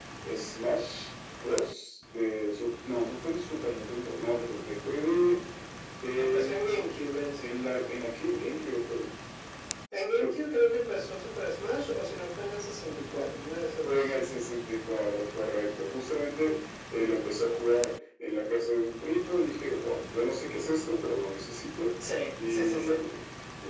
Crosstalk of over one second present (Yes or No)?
Yes